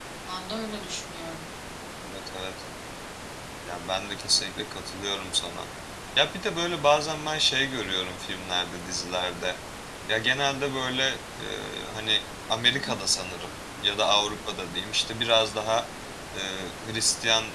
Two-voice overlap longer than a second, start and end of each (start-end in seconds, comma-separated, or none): none